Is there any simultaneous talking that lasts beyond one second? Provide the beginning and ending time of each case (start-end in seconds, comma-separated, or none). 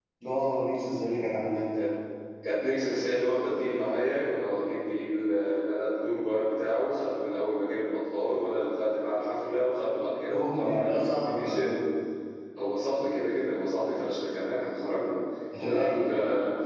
10.3-11.7